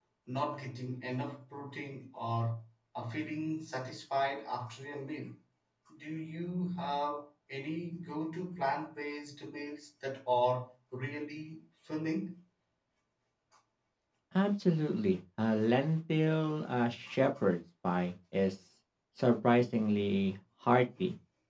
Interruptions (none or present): none